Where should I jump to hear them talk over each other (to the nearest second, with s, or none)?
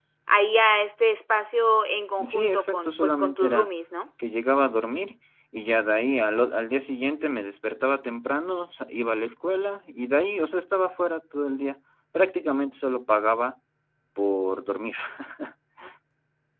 2 s